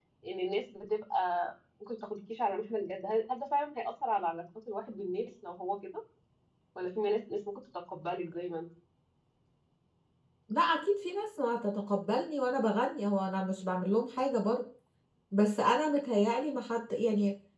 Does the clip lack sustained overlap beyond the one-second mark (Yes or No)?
Yes